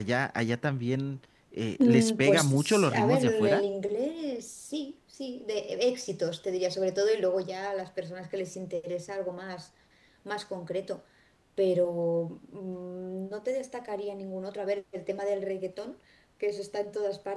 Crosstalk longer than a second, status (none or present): present